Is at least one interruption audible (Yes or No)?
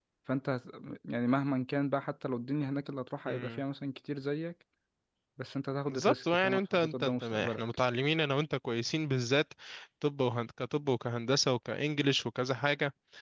Yes